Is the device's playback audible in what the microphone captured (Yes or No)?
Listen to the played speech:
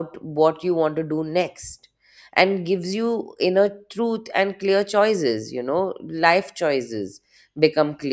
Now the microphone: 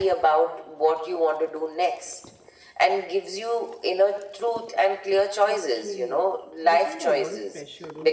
Yes